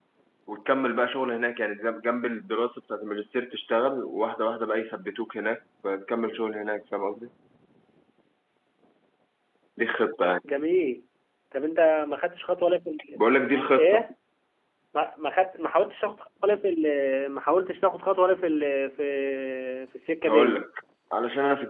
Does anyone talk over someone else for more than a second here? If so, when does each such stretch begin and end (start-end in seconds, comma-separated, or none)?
none